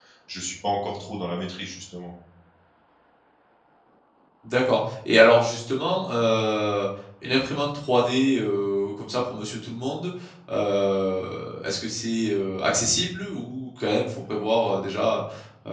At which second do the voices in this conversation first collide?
none

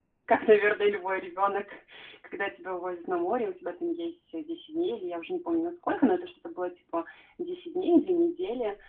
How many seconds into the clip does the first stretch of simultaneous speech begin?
none

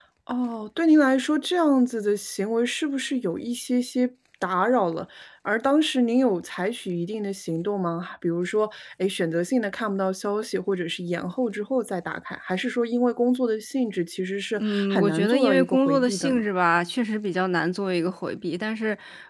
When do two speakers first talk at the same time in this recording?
15 s

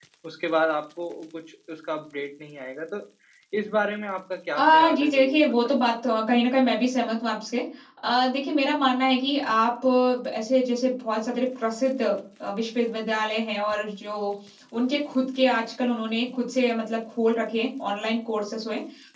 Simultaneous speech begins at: 5 s

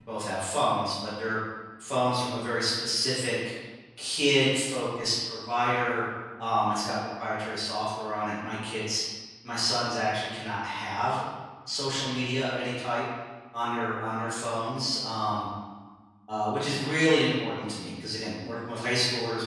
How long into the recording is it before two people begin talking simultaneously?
none

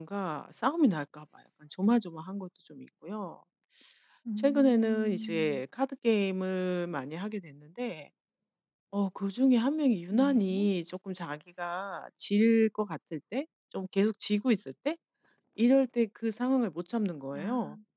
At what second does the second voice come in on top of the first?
4 s

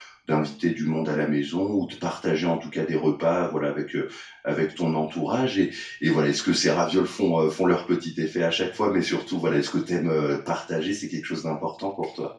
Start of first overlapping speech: none

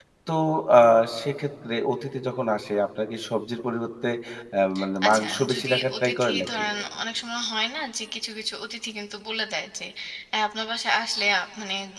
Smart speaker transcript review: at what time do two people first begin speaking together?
5 s

